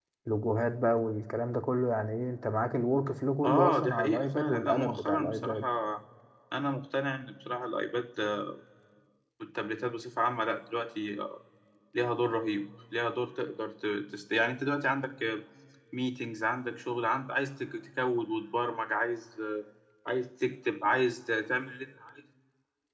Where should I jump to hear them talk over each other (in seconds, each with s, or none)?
3.4 s